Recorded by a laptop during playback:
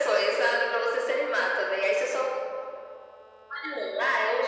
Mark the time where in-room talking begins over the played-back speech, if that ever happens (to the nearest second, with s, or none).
none